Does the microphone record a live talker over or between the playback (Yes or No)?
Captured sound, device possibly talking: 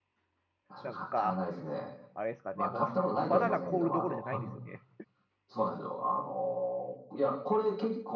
Yes